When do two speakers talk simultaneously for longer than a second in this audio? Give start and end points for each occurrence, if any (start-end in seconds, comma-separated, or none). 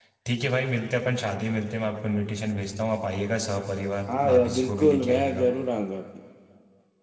4.2-5.5